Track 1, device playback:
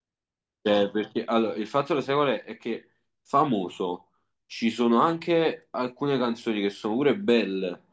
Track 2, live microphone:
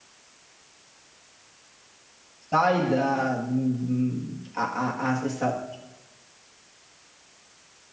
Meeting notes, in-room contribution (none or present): present